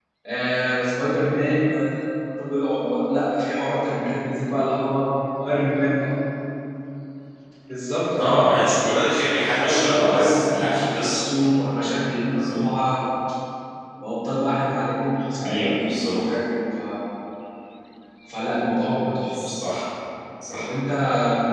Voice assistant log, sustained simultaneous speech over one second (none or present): present